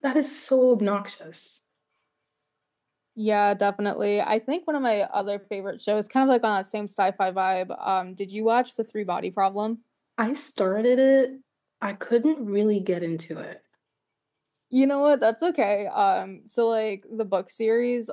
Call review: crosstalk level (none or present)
none